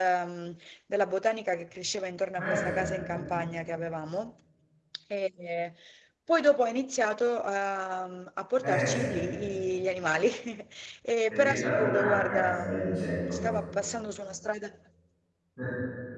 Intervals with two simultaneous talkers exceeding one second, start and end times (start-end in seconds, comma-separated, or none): 11.3-13.4